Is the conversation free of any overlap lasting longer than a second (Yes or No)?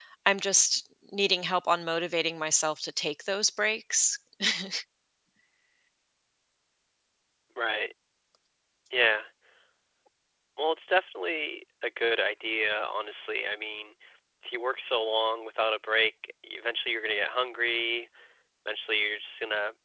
Yes